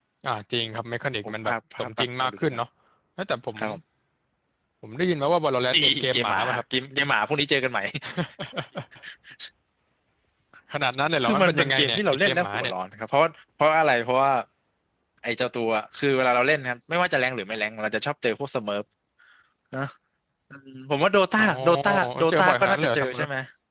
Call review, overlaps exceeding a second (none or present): present